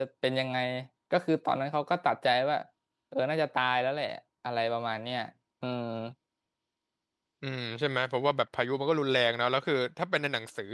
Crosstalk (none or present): none